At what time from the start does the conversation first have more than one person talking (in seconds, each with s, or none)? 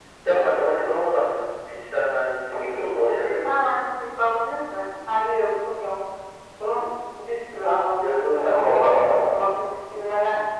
2.5 s